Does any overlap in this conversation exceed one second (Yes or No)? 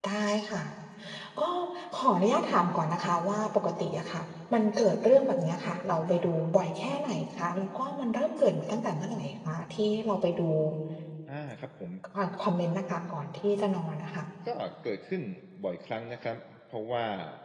No